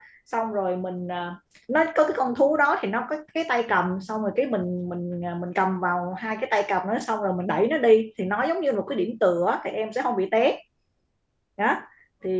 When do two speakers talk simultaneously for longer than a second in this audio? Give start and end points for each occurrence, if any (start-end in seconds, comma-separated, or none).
none